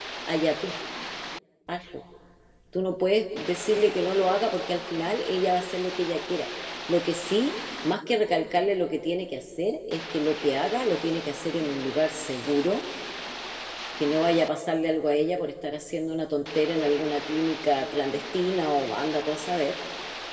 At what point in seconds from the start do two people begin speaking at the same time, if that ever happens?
none

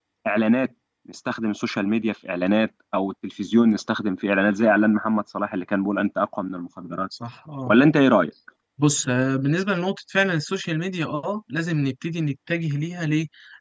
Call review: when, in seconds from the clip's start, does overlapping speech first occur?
none

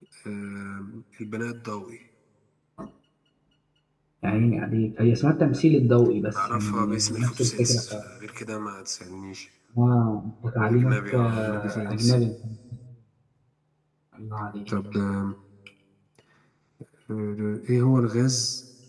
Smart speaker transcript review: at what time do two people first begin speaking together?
6 s

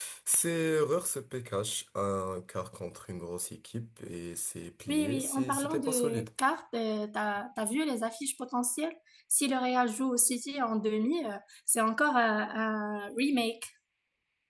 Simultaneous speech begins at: 5 s

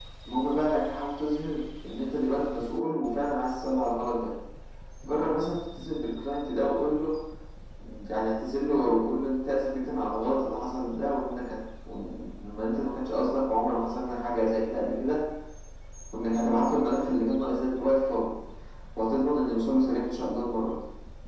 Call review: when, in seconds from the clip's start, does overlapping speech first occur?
none

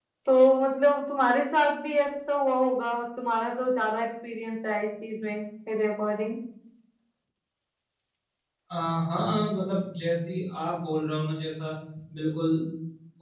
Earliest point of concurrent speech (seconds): none

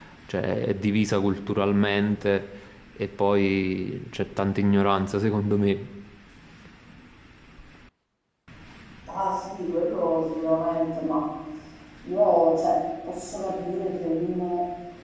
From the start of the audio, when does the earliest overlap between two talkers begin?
none

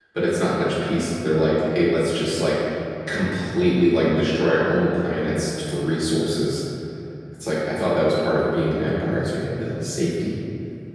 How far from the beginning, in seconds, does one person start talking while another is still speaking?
none

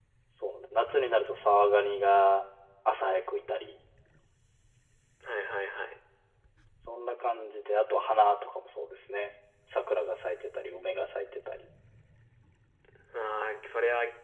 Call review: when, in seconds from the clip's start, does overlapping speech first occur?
none

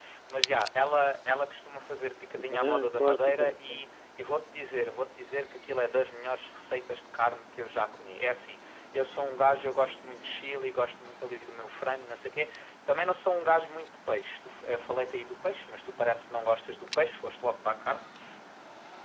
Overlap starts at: 2 s

